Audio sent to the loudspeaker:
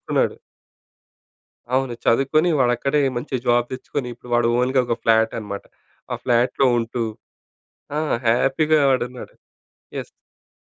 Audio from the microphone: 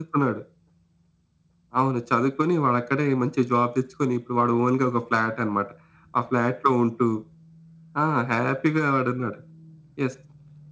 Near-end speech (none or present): none